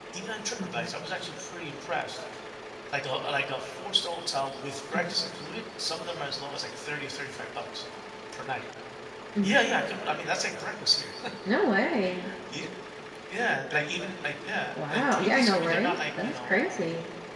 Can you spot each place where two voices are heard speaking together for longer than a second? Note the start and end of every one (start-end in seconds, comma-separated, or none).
14.9-16.9